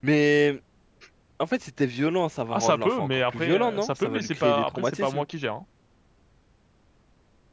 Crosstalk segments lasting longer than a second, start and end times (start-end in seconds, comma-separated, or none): 2.5-5.2